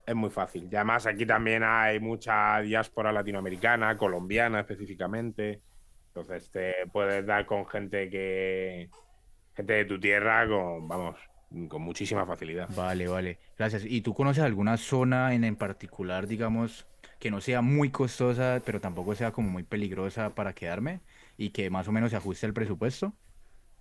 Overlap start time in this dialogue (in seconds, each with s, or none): none